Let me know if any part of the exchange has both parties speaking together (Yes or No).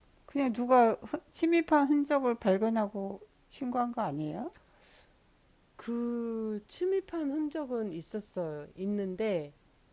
No